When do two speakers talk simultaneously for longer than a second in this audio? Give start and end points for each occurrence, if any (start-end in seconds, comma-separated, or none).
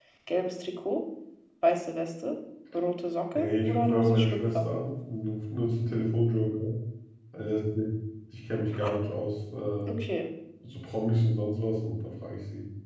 3.4-4.6